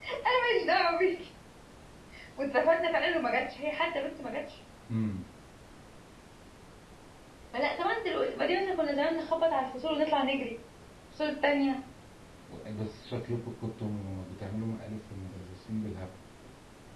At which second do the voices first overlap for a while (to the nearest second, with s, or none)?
none